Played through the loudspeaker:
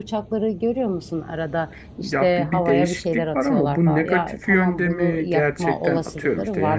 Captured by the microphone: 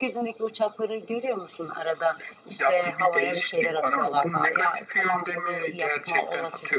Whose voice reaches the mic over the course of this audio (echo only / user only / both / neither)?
echo only